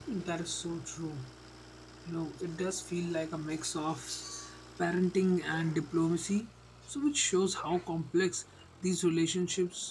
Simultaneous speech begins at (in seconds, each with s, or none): none